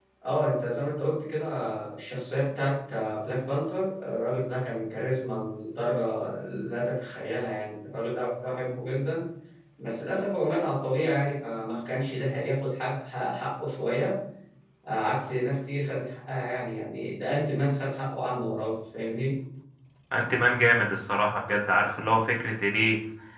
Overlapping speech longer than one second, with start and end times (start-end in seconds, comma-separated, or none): none